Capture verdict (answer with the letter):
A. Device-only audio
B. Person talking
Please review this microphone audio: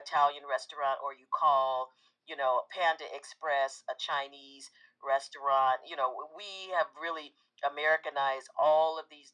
A